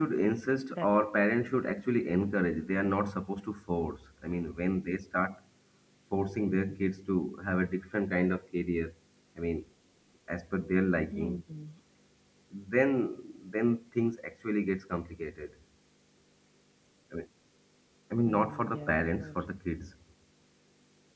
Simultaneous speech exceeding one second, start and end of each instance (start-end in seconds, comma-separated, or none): 18.2-19.6